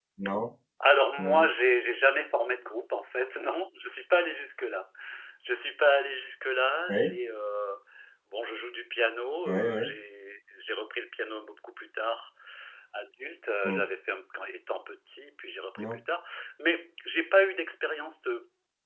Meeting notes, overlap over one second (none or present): none